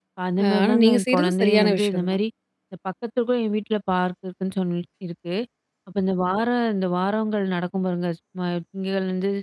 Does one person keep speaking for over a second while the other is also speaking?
Yes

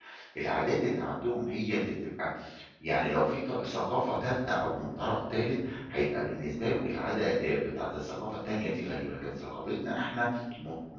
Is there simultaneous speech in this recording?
No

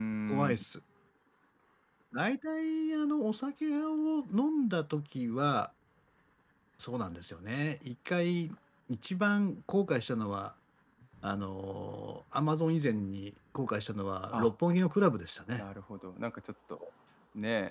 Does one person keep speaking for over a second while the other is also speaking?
No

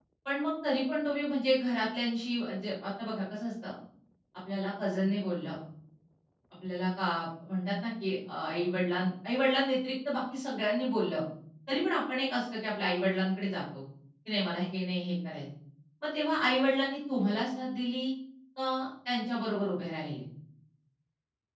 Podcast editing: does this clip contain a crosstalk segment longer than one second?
No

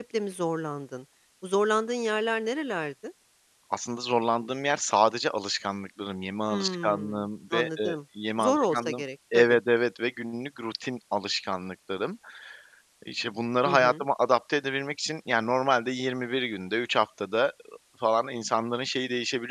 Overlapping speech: Yes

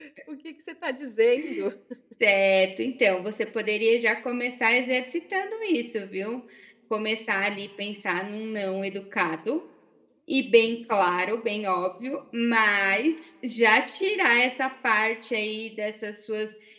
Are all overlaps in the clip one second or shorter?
Yes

